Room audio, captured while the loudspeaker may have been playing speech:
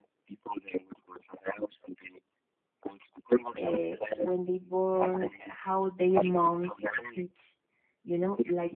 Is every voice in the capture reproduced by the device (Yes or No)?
No